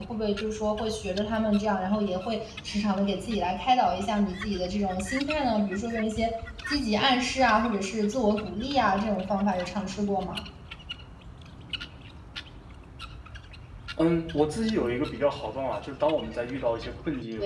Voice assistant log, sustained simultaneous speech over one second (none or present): none